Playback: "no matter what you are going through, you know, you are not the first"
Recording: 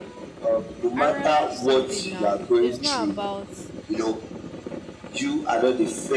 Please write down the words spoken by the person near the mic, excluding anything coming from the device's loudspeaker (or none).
I realized something now. It's not about